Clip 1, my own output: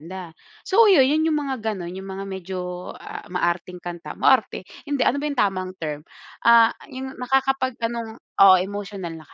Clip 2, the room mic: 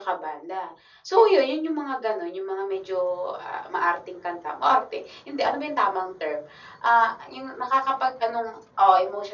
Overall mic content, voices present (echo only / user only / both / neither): echo only